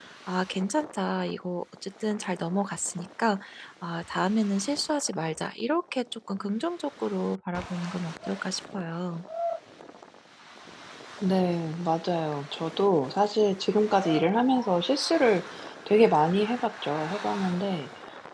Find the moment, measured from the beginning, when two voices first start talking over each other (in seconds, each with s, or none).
none